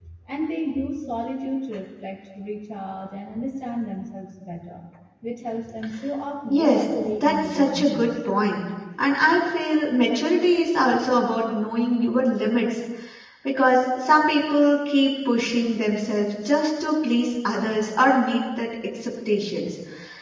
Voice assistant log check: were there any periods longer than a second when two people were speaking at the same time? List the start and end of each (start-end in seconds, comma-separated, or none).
6.5-8.1